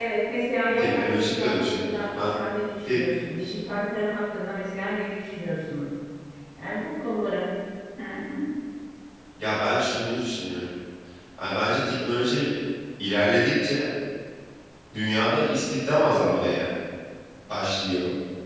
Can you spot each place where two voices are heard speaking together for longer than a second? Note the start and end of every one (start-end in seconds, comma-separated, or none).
0.8-2.4